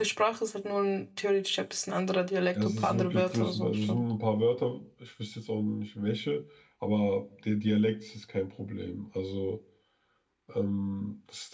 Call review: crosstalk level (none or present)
present